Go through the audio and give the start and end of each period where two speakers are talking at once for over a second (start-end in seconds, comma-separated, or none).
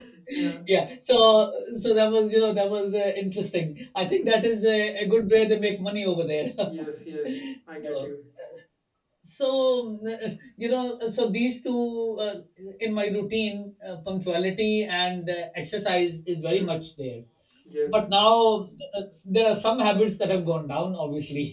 none